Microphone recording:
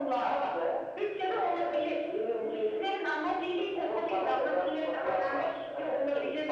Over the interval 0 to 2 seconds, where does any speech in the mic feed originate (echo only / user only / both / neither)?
echo only